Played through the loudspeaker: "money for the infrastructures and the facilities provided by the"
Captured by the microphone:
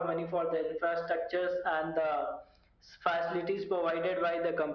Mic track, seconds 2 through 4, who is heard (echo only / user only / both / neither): echo only